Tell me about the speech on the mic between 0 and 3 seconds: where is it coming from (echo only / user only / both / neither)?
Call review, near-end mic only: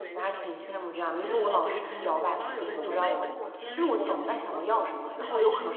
both